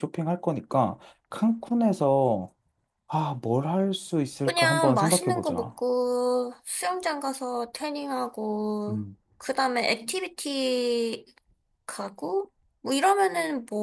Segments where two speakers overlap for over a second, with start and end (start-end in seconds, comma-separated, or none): 4.5-5.7